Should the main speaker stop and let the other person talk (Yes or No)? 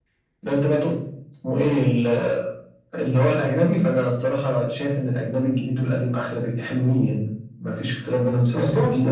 Yes